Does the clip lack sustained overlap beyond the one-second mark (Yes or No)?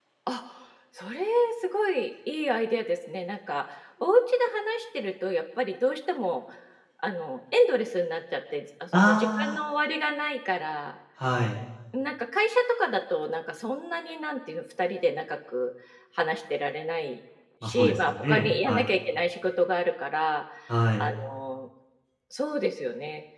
No